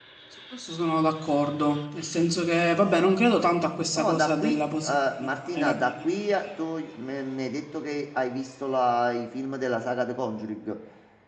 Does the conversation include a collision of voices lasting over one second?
Yes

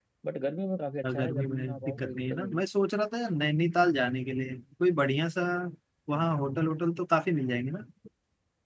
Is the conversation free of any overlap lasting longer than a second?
No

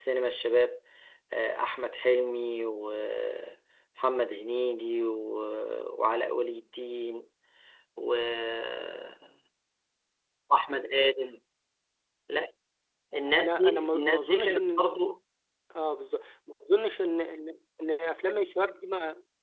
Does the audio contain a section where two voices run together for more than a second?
Yes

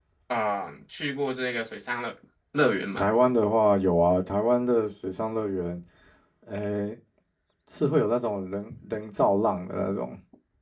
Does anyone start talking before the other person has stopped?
No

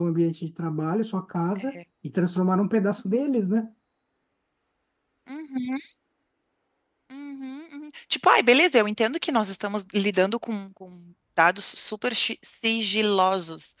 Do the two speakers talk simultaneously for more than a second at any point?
No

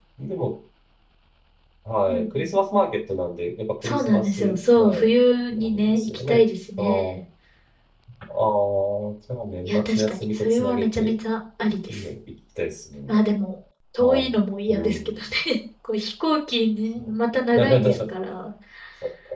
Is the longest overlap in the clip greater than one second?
Yes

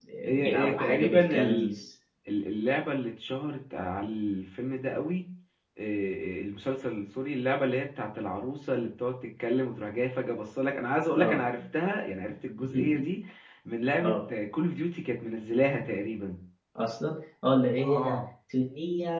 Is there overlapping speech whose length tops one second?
Yes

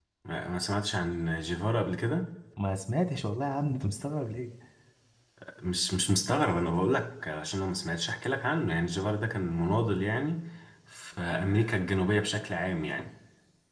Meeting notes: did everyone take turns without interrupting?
Yes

